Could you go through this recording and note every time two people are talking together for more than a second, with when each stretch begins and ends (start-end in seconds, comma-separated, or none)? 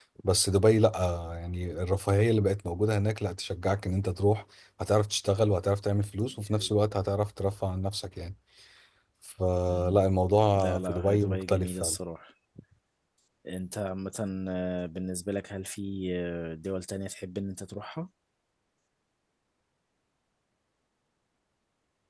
10.5-12.0